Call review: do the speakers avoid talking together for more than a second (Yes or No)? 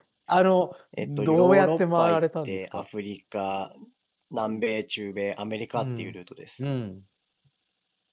No